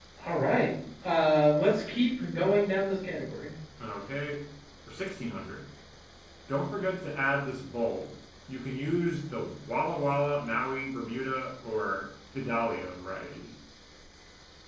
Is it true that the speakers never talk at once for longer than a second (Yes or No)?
Yes